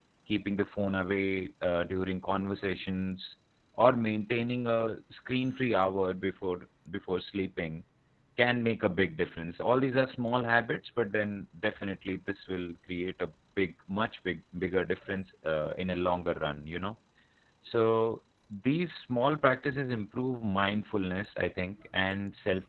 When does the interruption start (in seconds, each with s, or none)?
none